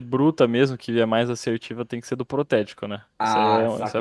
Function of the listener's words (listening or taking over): taking over